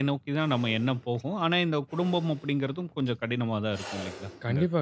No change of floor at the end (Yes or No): No